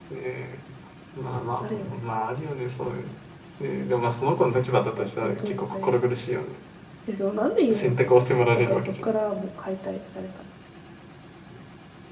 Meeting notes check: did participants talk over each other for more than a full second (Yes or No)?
Yes